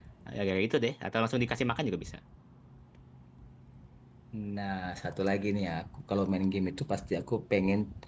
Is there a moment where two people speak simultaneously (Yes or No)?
No